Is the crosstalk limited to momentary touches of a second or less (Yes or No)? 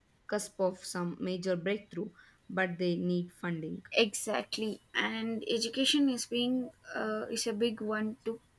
Yes